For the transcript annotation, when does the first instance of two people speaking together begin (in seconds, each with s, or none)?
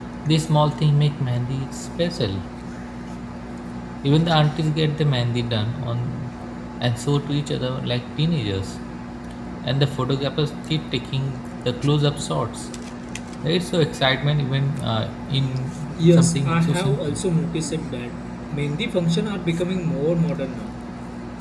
15.9 s